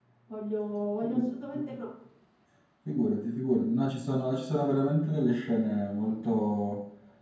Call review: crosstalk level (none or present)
none